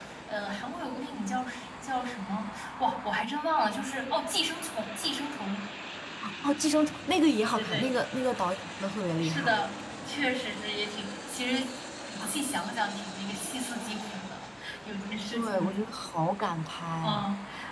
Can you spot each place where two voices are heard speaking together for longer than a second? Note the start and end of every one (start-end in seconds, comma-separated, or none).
none